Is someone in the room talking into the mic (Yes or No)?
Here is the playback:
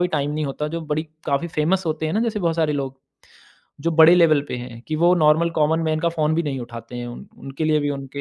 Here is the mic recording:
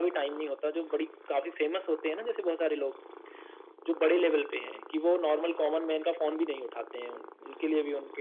No